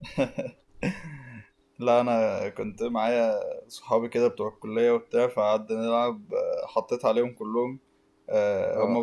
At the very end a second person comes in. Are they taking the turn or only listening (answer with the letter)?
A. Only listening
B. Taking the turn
A